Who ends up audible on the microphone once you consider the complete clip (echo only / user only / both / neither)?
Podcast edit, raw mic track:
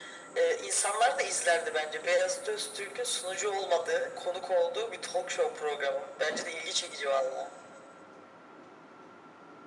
echo only